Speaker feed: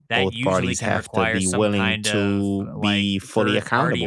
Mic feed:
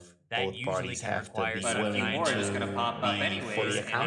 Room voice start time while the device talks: 1.6 s

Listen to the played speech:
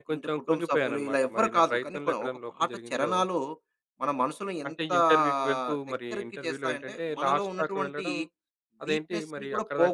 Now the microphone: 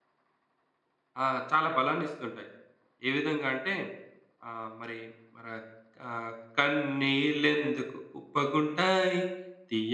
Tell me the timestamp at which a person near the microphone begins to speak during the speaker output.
1.2 s

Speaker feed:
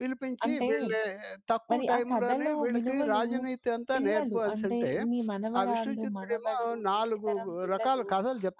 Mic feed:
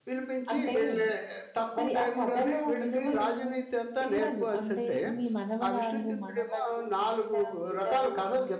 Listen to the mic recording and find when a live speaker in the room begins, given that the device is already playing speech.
none

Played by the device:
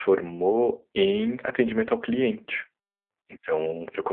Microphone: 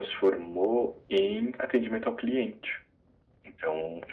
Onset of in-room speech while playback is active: none

